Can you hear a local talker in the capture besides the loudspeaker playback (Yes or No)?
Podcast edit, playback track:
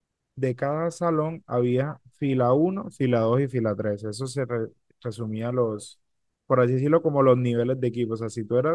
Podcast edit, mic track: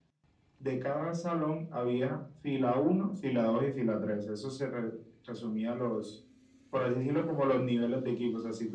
No